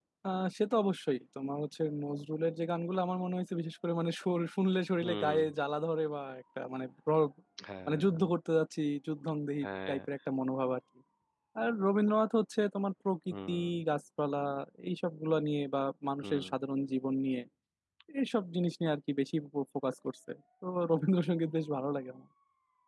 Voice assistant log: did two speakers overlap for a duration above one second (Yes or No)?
No